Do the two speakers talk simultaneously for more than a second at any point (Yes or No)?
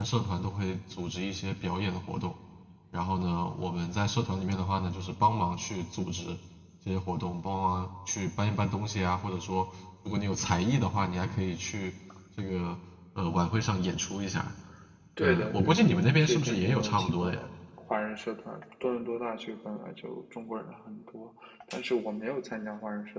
Yes